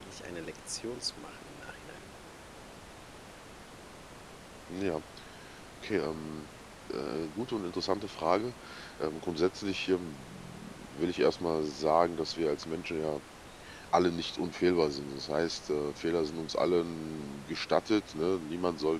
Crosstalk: none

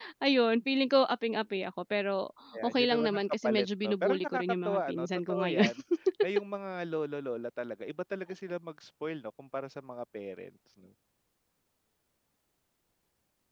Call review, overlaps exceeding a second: present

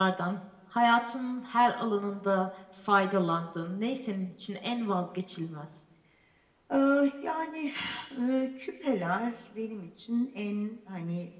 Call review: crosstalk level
none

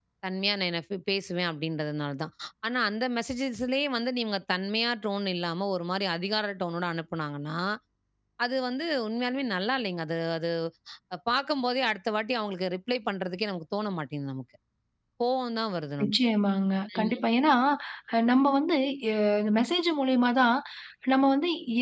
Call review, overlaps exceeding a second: none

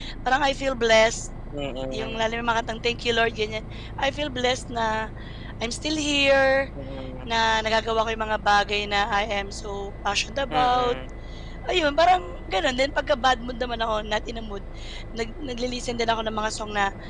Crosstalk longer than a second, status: none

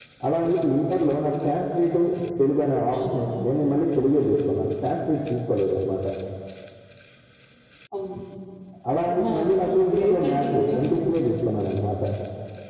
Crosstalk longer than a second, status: present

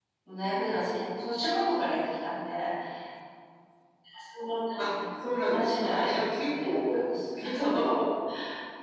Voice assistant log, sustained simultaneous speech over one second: present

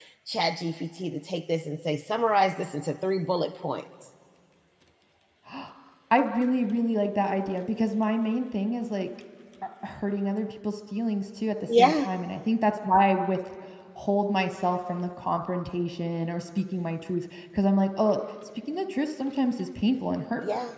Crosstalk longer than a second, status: none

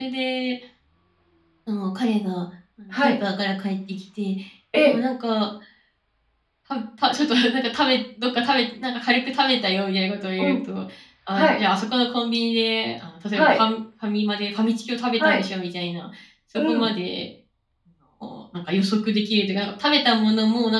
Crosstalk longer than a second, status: none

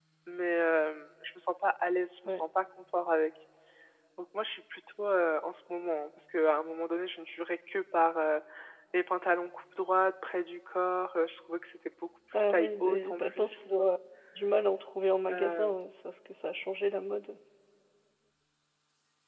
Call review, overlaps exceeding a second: present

